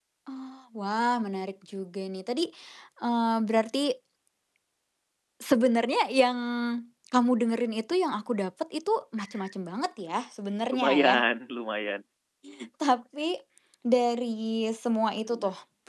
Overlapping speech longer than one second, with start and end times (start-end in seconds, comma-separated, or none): none